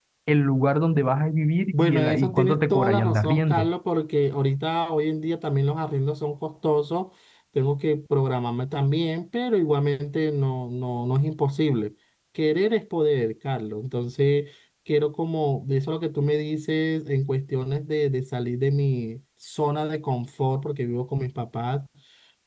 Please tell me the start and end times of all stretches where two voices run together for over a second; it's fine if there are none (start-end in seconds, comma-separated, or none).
1.7-3.7